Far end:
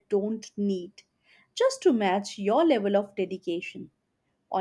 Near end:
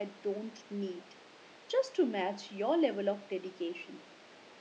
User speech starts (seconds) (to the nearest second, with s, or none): none